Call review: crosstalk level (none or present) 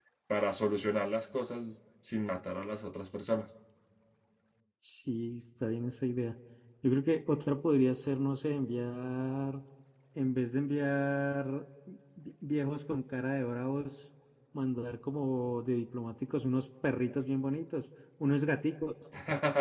none